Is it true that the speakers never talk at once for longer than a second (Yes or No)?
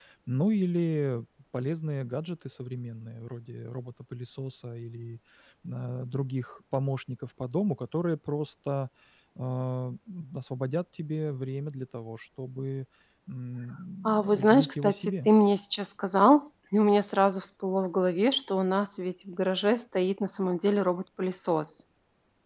No